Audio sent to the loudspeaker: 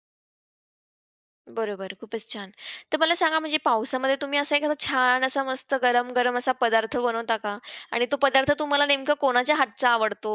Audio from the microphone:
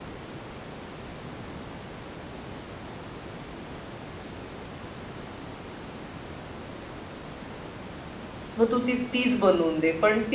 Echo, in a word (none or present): none